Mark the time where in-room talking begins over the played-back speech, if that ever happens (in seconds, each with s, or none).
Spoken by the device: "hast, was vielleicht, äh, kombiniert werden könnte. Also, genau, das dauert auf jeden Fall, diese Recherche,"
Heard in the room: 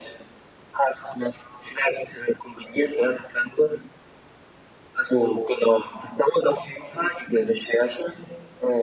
none